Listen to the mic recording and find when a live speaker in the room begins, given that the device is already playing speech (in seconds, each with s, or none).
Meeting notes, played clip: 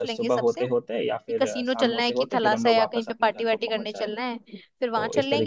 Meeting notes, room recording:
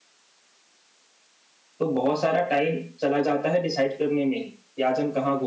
1.8 s